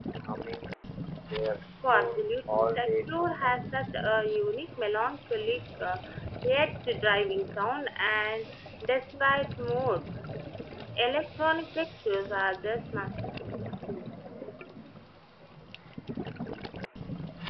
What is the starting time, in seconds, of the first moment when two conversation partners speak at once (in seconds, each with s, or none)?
1.9 s